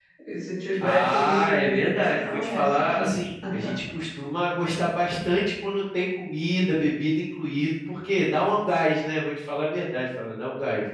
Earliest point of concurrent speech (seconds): 0.8 s

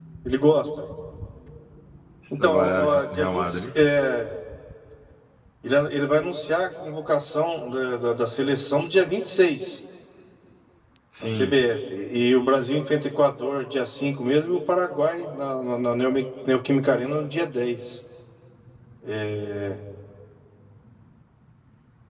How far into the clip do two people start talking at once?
2.4 s

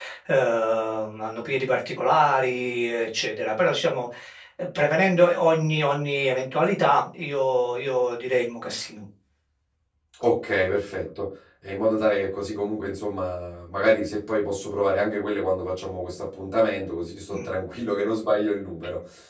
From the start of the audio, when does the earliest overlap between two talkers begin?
none

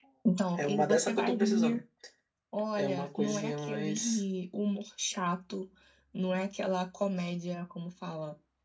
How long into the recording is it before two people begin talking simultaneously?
0.6 s

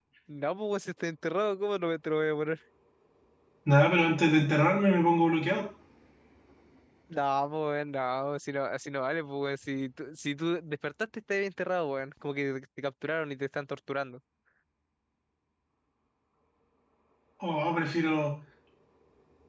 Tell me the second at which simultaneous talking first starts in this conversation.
none

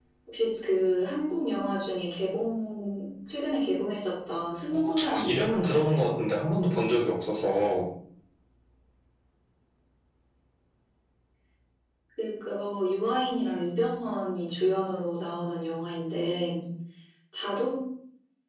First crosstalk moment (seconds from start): 4.7 s

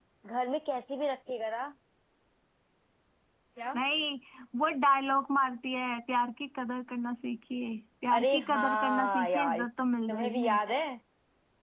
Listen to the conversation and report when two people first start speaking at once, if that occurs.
8.2 s

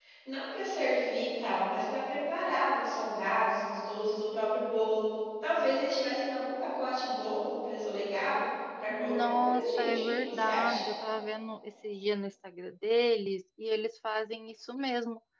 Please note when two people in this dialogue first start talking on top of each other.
8.9 s

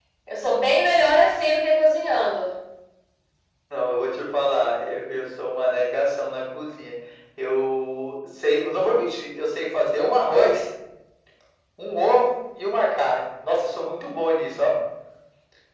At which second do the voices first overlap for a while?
none

